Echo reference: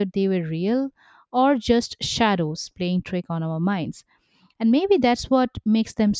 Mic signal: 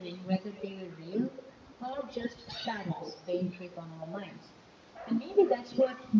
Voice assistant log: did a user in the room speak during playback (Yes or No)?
No